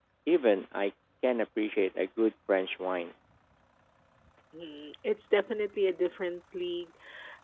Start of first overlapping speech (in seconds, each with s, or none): none